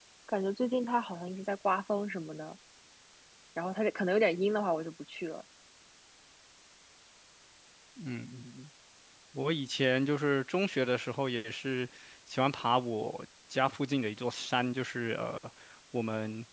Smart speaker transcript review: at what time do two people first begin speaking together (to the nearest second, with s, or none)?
none